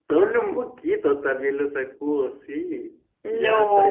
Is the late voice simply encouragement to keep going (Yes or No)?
No